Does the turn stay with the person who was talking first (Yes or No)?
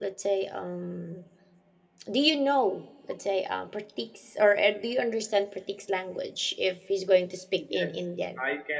No